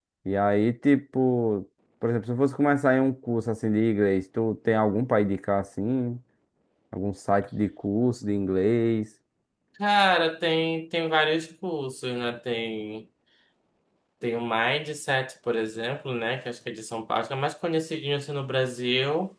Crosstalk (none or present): none